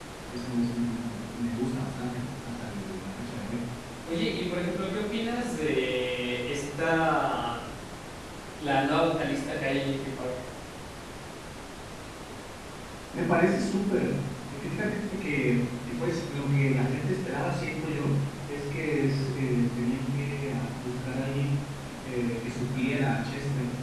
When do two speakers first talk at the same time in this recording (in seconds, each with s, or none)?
none